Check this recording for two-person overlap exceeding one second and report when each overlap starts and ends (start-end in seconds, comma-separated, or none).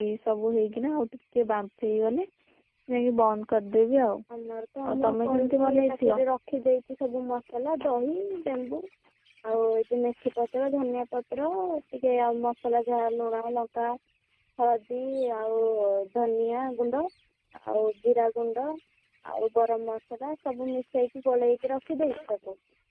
4.9-6.2